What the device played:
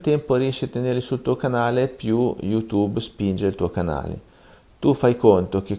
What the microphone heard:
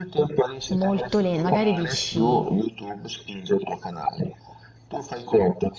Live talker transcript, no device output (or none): molto lento. Magari dici